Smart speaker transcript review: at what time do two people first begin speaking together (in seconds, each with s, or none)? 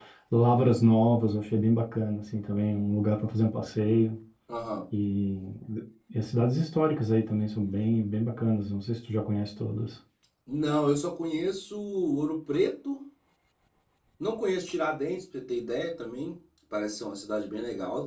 none